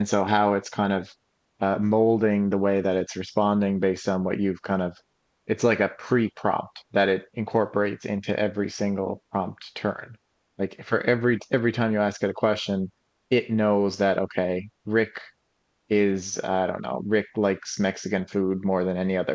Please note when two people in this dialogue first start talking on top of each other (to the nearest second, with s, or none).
none